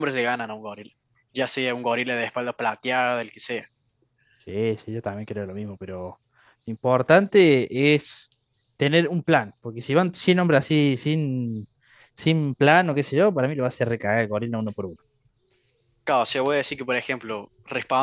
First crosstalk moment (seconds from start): none

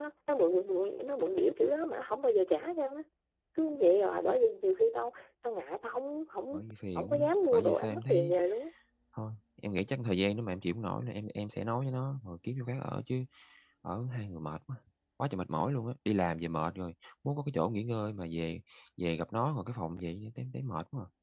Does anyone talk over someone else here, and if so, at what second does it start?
7.0 s

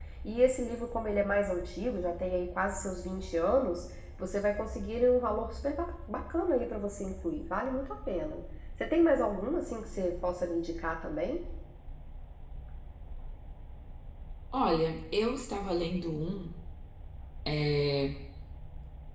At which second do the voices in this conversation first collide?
none

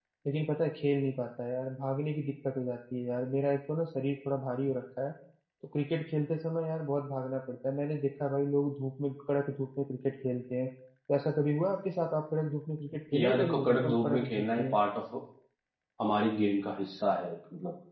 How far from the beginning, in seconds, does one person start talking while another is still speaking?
13.1 s

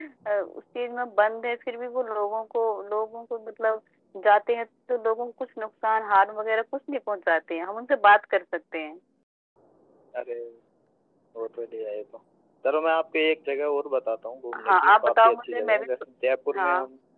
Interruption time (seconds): 14.7 s

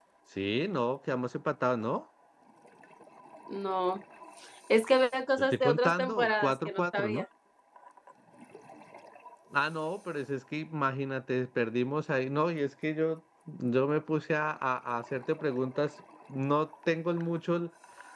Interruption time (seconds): 5.4 s

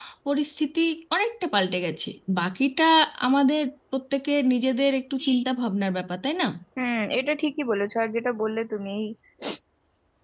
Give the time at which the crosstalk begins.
none

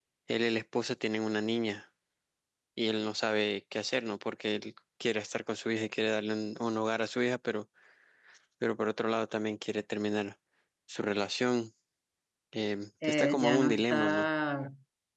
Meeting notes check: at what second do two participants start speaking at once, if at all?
13.0 s

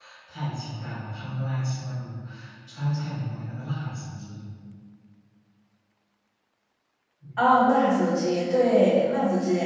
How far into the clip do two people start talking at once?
none

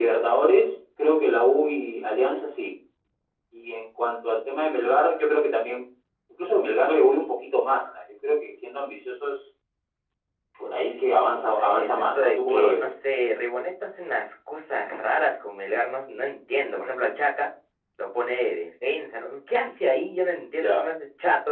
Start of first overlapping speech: 11.5 s

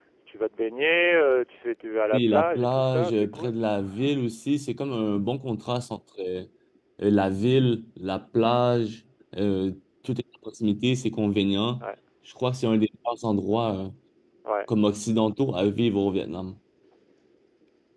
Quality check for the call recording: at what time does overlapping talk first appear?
2.1 s

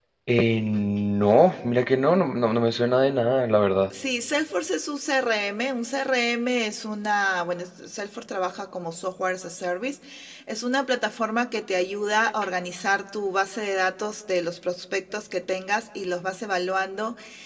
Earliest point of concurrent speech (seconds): none

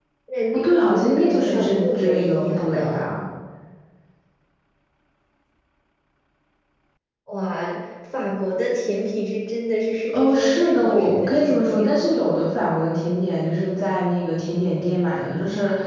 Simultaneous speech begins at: 0.5 s

